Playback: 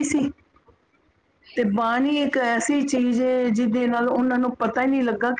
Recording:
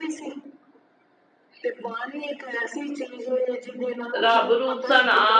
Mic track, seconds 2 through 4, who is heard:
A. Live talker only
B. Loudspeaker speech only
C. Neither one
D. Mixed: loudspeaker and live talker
B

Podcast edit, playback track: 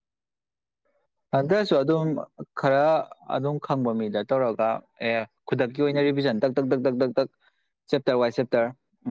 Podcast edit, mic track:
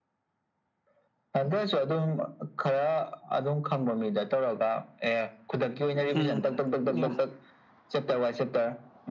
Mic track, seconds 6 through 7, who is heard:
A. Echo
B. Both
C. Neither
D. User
B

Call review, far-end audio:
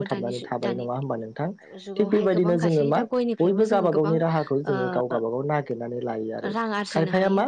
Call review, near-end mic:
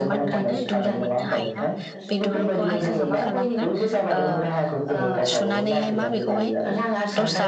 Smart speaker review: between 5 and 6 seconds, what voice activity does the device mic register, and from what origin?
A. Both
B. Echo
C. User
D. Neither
A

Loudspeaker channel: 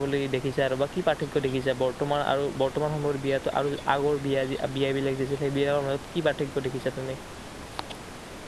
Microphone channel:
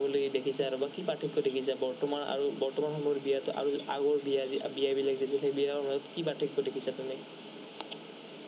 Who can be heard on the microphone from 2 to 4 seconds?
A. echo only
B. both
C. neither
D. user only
A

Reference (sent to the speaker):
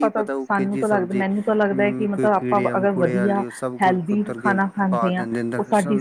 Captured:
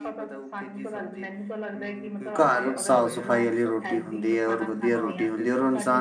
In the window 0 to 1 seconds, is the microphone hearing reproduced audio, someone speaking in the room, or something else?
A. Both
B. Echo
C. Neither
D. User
B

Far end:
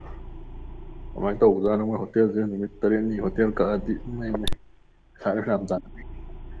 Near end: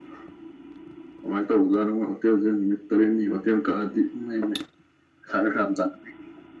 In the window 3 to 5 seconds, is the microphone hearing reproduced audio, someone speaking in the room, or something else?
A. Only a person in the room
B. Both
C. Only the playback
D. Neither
C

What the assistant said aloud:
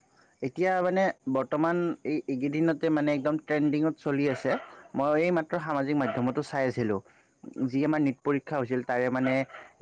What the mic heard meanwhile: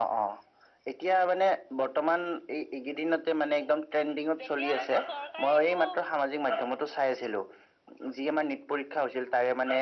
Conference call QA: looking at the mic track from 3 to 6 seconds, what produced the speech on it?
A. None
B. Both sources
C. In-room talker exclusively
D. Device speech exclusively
B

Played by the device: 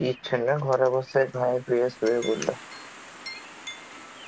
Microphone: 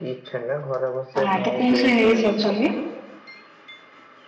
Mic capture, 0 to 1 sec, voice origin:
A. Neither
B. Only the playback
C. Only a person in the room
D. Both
B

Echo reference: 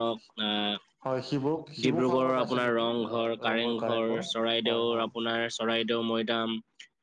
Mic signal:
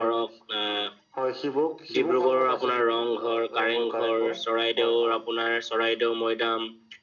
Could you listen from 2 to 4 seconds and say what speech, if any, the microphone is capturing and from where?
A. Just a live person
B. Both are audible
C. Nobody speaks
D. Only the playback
D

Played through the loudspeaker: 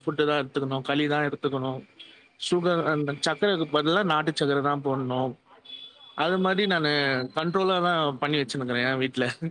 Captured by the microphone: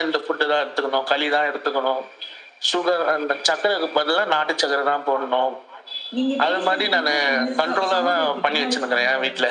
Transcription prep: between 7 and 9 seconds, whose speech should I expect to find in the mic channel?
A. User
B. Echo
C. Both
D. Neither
C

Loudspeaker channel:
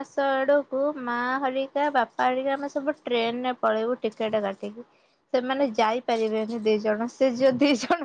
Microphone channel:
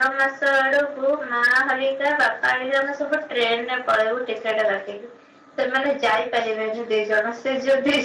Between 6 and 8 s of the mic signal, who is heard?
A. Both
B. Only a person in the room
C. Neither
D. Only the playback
D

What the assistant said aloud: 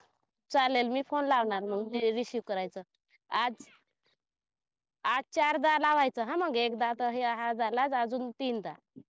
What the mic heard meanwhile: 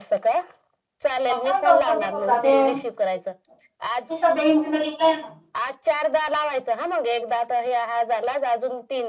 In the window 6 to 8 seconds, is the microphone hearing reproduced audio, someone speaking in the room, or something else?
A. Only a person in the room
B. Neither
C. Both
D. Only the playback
D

